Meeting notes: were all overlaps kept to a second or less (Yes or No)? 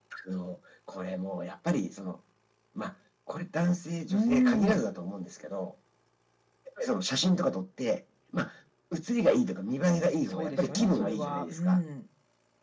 No